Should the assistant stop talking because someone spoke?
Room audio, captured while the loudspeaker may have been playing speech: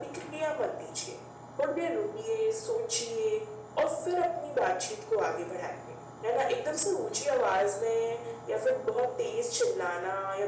No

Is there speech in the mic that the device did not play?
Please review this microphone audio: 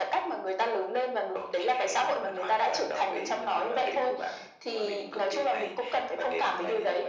No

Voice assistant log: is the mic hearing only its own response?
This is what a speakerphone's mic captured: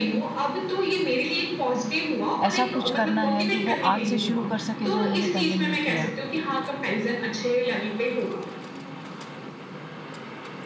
No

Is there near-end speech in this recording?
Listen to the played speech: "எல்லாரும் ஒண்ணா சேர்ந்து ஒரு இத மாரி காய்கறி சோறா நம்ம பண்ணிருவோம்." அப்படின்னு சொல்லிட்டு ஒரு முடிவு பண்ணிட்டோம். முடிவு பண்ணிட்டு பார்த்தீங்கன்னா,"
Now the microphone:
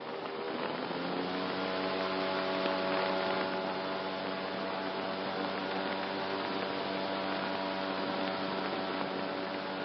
No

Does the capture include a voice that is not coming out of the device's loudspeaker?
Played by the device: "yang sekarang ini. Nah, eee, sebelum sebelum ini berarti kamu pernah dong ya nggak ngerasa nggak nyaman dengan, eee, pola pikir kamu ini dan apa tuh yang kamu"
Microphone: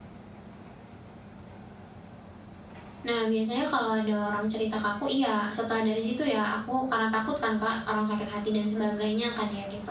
Yes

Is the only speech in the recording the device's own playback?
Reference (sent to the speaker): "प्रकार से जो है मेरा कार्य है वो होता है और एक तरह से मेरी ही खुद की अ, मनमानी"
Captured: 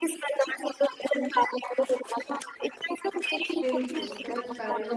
No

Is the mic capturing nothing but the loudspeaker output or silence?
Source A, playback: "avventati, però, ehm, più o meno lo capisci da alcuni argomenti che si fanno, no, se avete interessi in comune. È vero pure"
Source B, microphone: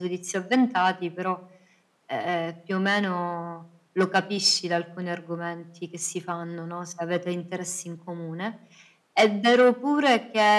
Yes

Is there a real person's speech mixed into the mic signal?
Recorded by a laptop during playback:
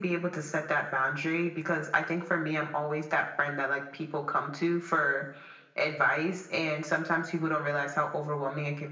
No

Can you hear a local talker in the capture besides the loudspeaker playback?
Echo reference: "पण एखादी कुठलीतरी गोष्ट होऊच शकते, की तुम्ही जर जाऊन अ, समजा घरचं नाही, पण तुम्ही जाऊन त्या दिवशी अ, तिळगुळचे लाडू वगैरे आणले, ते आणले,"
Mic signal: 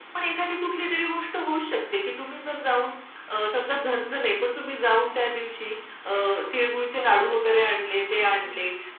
Yes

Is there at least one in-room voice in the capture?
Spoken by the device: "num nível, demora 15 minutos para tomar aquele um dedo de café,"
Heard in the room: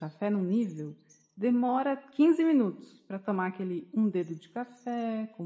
No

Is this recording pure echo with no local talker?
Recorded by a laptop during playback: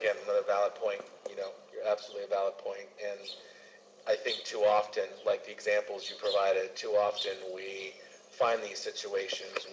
Yes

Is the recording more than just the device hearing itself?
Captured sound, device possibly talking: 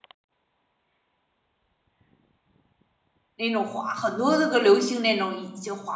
Yes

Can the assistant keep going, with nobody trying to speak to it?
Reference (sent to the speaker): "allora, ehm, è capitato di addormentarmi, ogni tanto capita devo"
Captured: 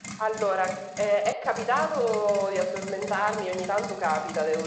Yes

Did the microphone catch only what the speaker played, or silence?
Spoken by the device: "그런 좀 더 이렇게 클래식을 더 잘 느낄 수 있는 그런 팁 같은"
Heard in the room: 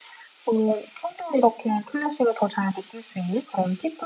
Yes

